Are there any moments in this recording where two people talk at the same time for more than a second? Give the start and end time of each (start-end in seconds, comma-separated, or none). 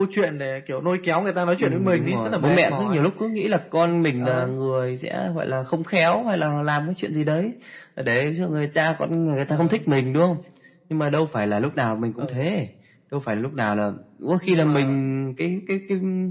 1.6-3.0